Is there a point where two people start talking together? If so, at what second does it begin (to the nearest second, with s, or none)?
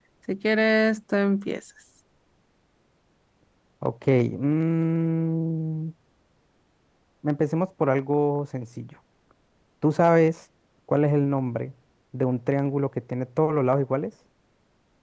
none